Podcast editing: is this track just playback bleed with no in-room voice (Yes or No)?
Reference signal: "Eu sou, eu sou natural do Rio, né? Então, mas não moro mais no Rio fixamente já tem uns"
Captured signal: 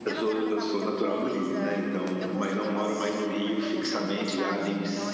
No